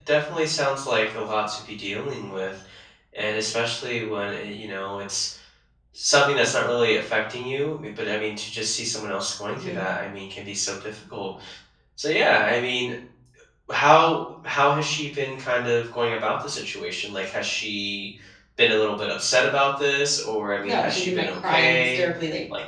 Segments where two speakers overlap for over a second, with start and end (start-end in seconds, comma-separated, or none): 20.6-22.0